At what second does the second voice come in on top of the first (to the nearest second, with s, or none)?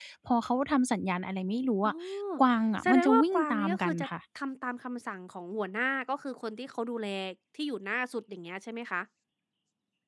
3 s